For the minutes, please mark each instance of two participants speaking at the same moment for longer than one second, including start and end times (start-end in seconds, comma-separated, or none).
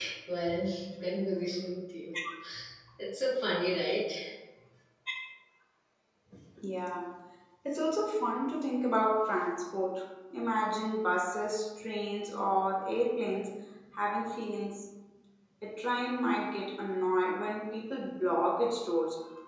none